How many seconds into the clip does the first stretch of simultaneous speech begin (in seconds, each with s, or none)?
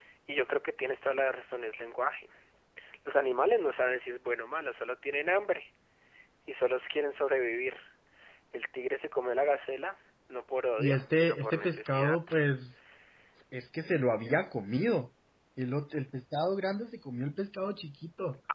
10.8 s